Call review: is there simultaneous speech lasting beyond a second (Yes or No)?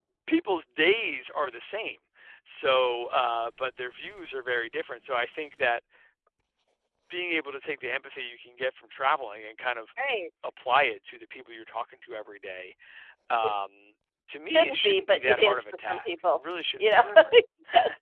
Yes